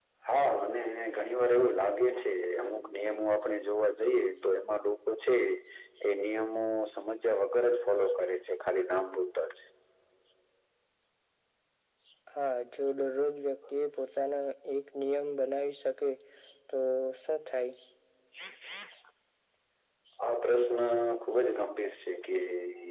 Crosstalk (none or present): none